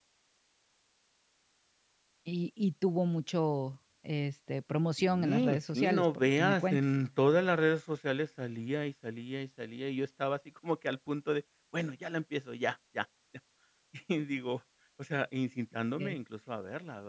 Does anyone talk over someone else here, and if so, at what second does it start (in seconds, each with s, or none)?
5.0 s